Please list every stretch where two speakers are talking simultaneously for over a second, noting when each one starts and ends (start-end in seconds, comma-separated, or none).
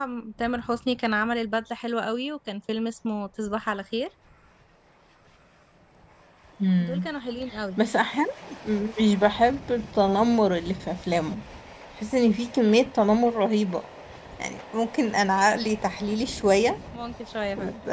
none